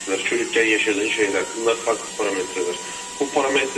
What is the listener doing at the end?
listening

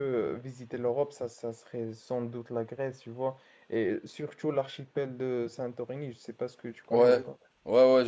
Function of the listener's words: taking over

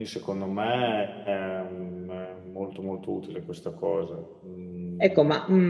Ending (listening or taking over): taking over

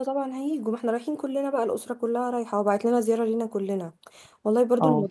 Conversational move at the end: listening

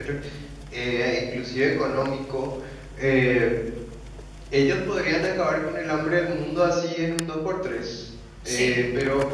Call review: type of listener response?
listening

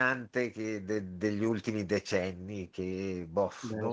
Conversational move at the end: listening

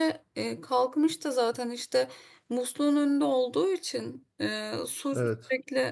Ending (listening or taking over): listening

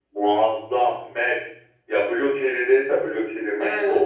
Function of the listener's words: taking over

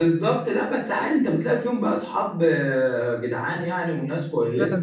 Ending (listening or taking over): taking over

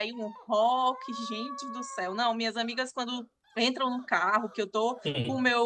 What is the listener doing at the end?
listening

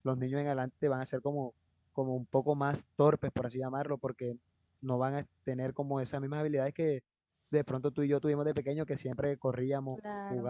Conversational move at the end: listening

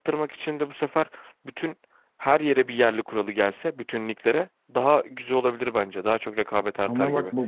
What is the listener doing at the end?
taking over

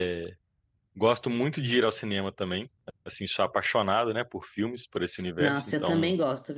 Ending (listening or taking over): taking over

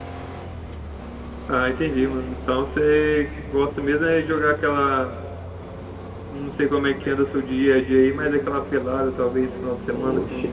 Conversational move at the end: taking over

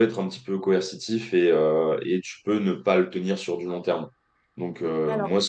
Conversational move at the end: listening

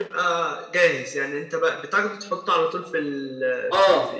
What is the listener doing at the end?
taking over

